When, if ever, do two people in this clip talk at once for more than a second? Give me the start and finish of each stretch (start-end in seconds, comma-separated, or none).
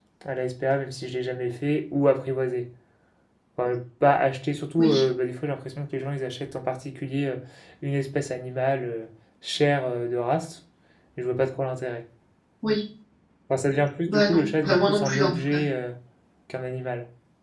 14.1-15.6